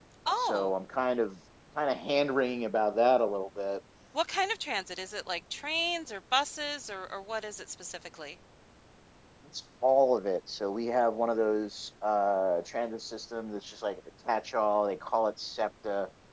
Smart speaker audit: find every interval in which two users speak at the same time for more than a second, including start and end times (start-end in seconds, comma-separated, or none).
none